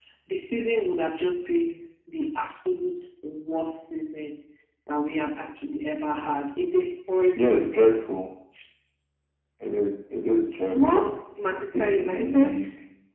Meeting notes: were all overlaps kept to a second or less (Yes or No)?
No